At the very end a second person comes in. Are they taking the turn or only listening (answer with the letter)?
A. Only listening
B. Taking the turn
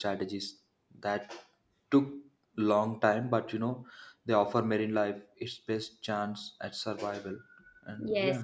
B